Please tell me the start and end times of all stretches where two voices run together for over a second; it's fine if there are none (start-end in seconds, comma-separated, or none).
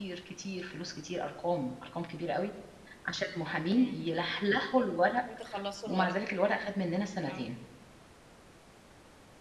none